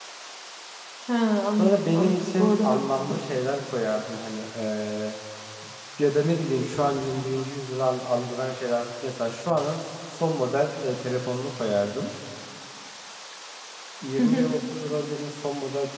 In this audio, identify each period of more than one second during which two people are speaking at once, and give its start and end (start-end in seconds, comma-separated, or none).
1.6-3.2